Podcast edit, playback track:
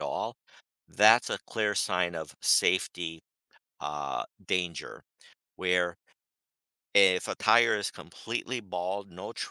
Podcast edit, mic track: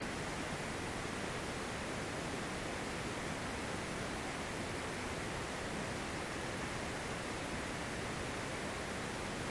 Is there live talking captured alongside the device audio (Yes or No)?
No